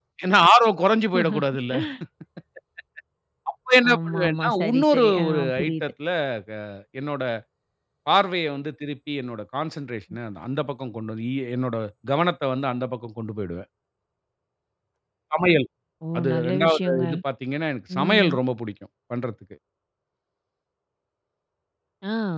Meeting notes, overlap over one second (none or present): present